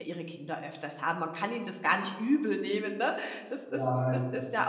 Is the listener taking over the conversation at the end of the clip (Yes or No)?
No